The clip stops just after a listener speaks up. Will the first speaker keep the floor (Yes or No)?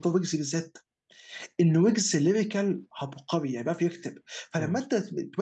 Yes